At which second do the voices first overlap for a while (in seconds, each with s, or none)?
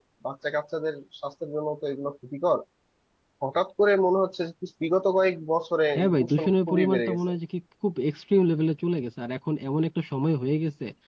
6.0 s